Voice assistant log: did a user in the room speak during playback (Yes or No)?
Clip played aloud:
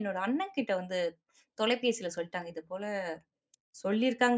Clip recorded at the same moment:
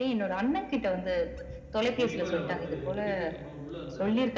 Yes